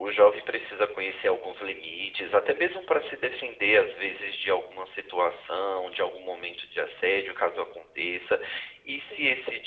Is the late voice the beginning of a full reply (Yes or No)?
No